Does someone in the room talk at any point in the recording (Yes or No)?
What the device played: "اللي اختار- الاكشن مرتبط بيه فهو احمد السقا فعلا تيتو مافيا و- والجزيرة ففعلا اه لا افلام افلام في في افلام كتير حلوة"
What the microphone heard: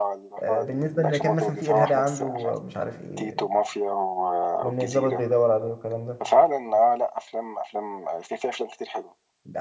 Yes